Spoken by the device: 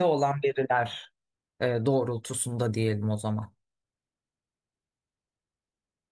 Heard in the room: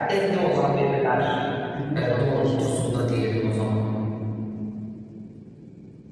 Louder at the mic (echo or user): echo